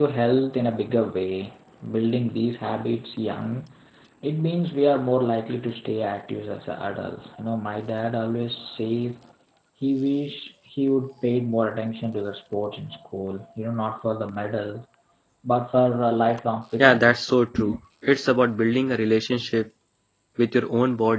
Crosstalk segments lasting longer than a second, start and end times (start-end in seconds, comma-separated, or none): none